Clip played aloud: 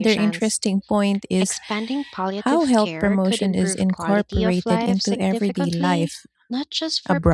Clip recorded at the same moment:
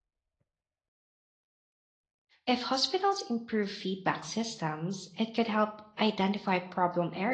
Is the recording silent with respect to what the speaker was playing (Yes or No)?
Yes